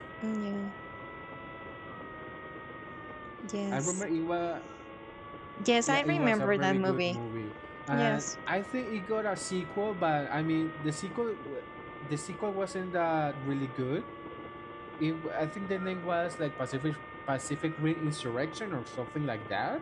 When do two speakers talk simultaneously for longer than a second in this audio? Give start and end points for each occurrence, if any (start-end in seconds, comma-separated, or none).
5.9-7.2